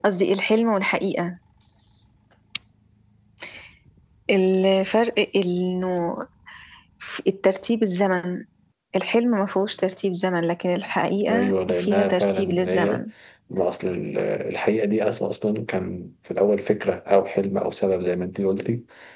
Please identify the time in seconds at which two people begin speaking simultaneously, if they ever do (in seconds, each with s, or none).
11.3 s